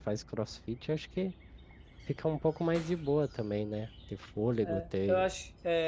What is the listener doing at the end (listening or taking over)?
taking over